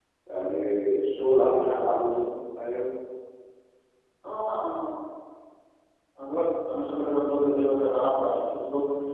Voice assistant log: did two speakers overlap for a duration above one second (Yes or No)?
No